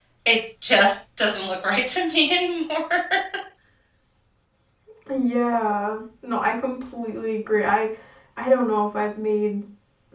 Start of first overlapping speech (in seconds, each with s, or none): none